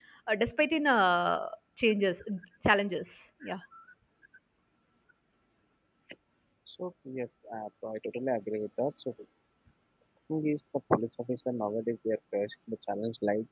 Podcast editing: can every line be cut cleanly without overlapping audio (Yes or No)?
Yes